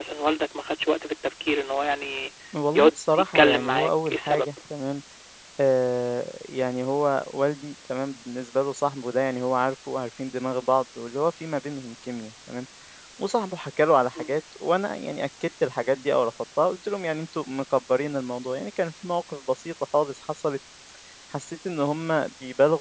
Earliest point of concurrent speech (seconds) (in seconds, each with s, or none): 2.7 s